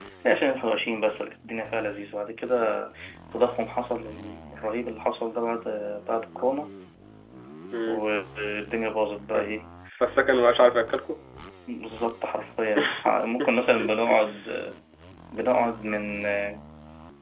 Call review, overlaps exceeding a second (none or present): none